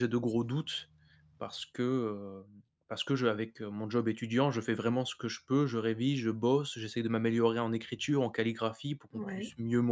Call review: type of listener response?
listening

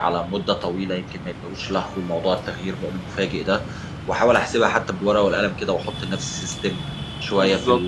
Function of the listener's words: listening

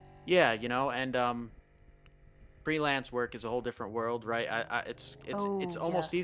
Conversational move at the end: listening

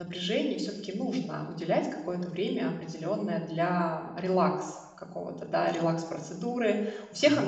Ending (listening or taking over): listening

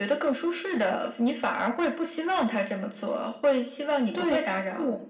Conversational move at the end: taking over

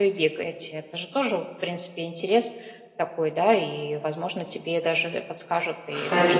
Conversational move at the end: taking over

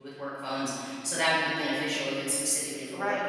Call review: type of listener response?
taking over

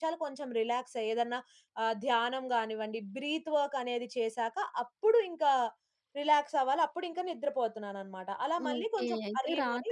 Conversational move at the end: taking over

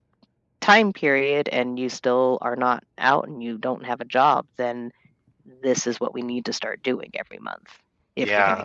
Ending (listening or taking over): taking over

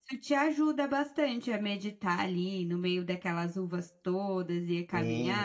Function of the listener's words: taking over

